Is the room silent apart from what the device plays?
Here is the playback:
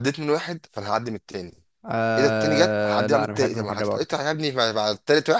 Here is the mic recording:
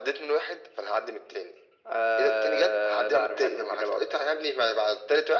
Yes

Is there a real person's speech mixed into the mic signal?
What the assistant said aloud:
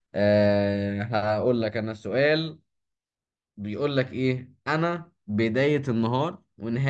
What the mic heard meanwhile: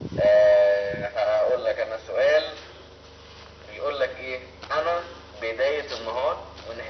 No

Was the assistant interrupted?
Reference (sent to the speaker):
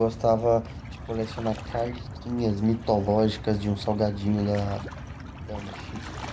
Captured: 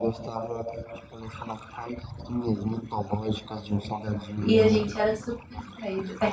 Yes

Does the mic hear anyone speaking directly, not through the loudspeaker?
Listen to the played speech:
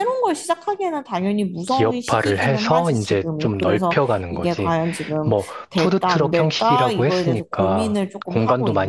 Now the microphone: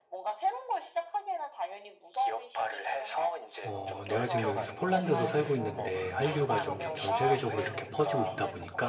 Yes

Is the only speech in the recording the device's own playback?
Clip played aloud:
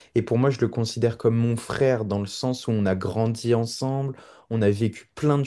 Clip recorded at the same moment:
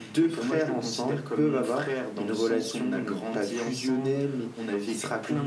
No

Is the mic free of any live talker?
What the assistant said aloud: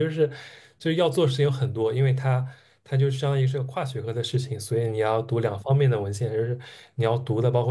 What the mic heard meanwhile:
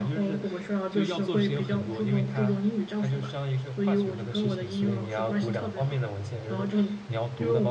No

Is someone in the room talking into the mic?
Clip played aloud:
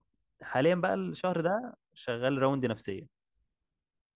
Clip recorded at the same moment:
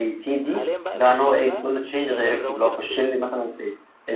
Yes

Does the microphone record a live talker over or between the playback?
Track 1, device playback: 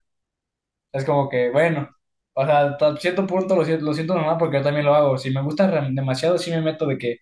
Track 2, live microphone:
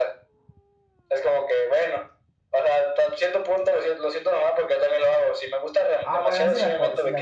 Yes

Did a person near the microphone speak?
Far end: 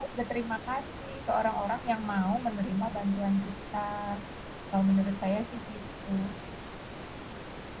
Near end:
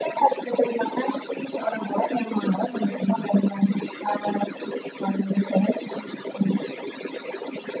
No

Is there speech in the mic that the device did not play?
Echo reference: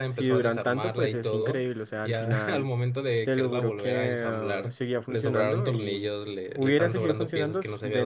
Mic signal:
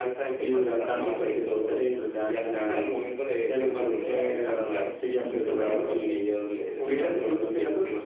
Yes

